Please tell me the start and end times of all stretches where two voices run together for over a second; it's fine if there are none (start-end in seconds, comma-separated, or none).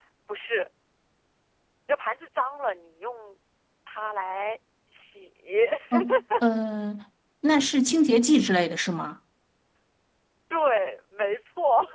none